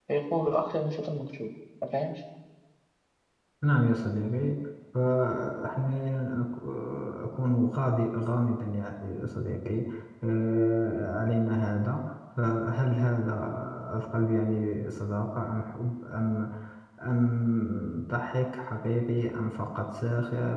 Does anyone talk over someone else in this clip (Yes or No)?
No